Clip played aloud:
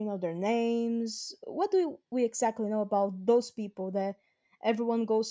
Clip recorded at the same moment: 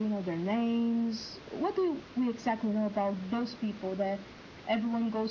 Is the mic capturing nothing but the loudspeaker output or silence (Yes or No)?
Yes